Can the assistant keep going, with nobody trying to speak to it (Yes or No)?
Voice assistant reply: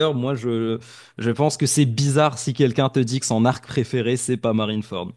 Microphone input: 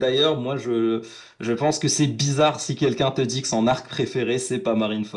Yes